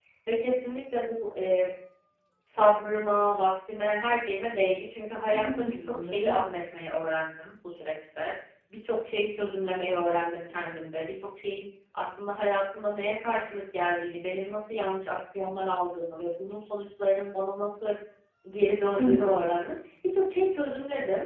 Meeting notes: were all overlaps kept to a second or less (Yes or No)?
No